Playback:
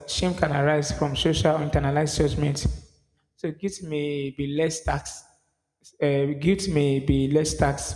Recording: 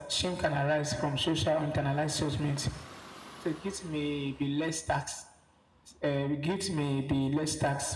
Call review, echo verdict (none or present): present